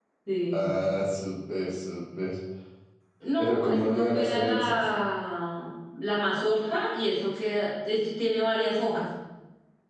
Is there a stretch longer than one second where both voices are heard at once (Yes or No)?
Yes